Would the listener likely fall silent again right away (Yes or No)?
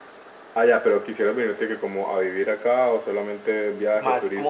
No